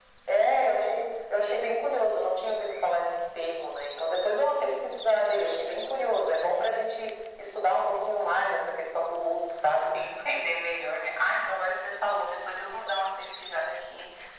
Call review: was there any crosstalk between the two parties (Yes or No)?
No